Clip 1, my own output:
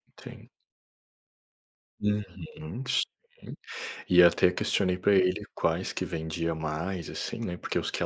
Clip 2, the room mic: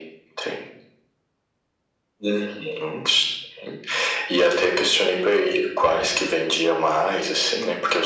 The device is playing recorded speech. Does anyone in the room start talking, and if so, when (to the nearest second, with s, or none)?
none